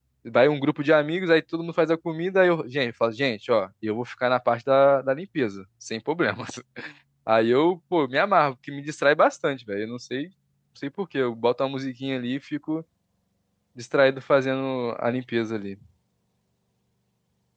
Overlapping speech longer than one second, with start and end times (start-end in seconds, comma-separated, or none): none